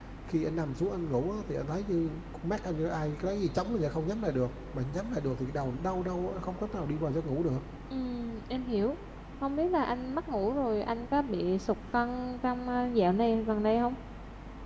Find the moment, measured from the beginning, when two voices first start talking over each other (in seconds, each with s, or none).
none